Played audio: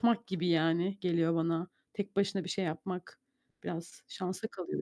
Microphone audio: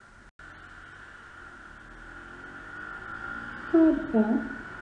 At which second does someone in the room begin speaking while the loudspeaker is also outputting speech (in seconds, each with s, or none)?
3.7 s